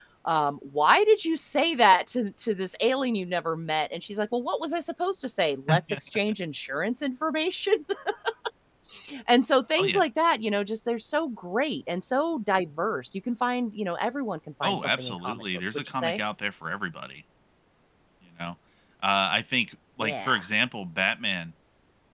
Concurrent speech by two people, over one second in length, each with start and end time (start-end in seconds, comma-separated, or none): 14.6-16.2